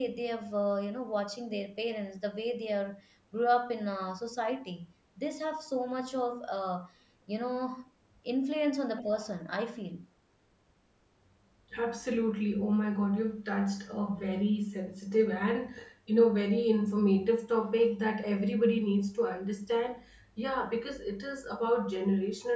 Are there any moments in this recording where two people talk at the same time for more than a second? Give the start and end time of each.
none

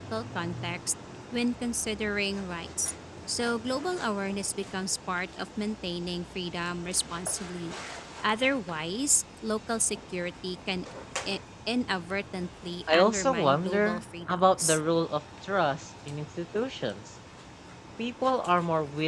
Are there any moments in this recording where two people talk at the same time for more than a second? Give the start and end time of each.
12.9-14.8

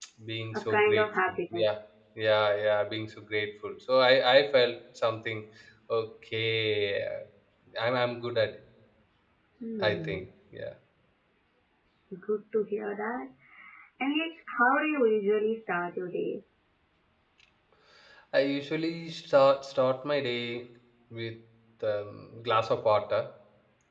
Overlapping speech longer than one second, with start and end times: 0.5-1.8

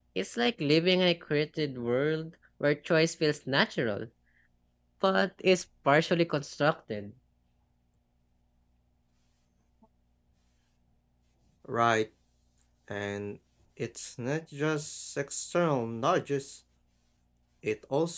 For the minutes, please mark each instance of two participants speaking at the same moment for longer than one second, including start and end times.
none

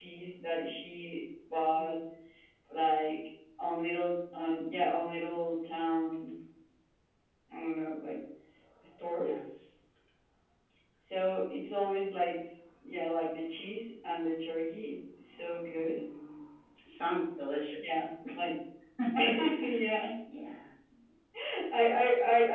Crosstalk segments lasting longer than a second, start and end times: none

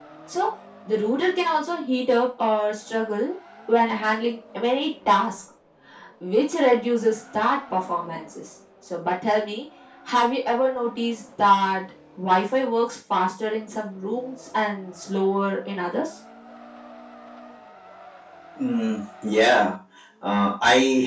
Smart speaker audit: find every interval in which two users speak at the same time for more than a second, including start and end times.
none

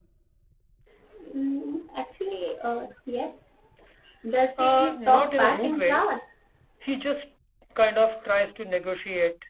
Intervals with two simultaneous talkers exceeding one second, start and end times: 4.6-6.0

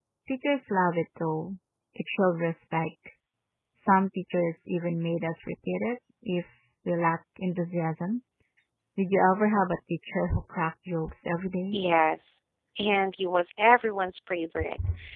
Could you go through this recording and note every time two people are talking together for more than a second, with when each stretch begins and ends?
none

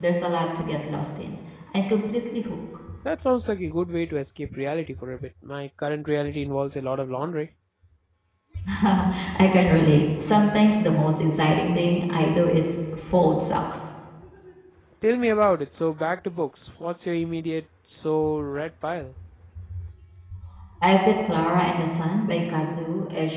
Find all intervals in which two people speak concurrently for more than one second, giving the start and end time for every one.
none

